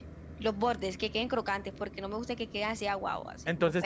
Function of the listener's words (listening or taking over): taking over